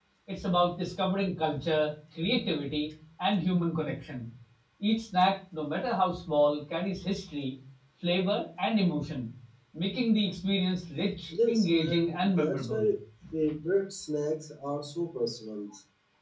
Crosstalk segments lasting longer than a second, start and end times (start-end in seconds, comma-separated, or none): 11.3-12.9